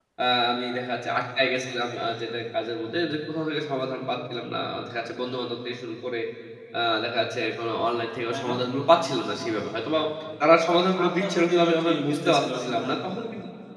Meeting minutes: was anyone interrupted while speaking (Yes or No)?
Yes